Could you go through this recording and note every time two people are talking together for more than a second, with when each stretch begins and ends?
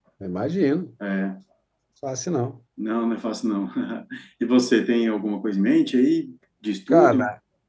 none

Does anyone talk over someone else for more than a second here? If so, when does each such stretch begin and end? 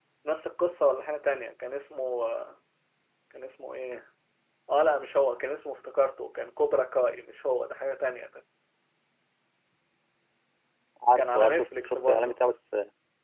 11.1-12.4

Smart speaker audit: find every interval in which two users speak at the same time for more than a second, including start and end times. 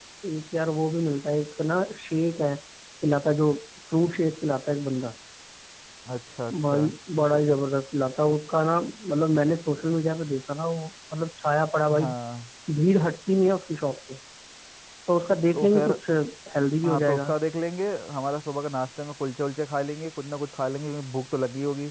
none

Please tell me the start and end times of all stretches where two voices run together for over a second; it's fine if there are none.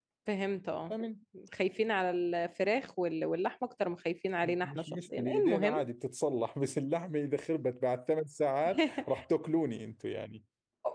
4.4-5.8

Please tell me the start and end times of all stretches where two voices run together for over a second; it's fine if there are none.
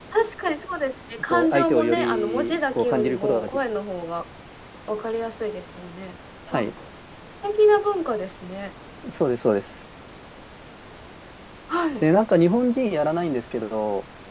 1.3-3.6

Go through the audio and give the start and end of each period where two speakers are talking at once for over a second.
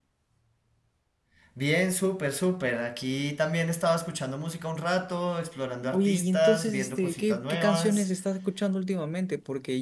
5.9-8.1

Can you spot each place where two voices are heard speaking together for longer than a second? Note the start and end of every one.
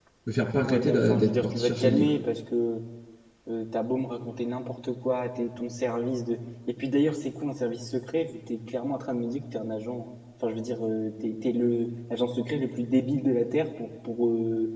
0.7-2.1

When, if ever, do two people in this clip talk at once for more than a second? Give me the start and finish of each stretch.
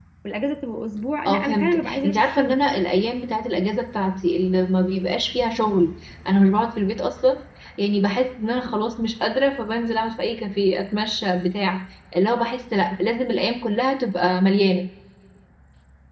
1.2-2.6

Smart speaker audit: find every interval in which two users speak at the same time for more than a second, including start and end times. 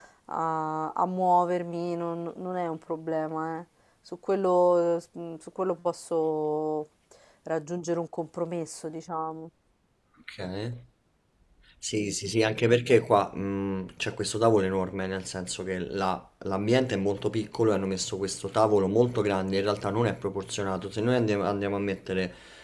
none

